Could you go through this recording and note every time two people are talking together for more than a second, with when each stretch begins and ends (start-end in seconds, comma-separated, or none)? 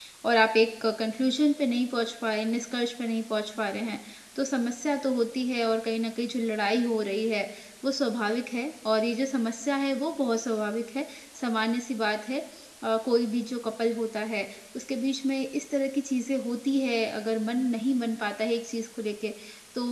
none